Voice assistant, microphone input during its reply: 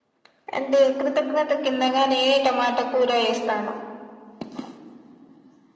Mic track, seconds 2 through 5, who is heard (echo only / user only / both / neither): echo only